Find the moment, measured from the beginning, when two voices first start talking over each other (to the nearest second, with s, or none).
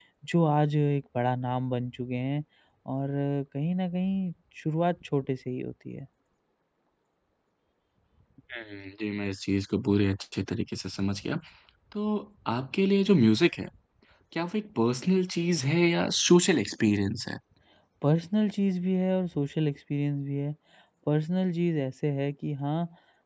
none